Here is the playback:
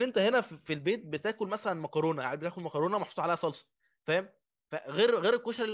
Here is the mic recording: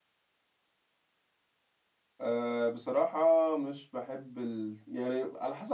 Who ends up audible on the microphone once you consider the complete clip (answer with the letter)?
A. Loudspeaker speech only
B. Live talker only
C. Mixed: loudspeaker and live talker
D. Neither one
B